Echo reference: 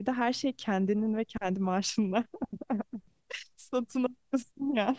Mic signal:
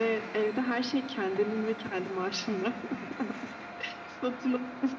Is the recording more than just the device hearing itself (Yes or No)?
No